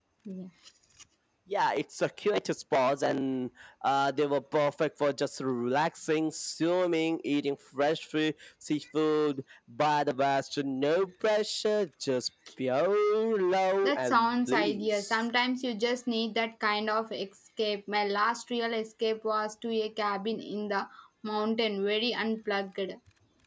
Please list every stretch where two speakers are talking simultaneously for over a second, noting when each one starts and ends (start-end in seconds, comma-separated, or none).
13.8-15.2